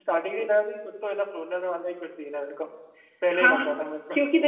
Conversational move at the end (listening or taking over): taking over